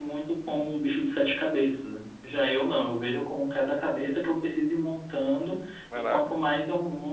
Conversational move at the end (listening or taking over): listening